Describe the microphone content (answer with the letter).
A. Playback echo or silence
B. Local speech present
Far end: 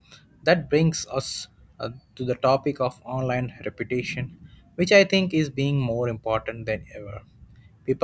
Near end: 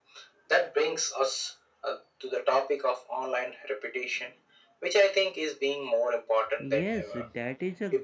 B